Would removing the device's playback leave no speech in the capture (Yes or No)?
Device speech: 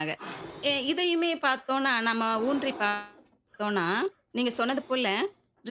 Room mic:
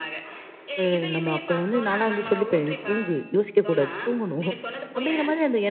No